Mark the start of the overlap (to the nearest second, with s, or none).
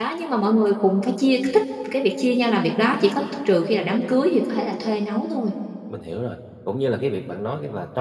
none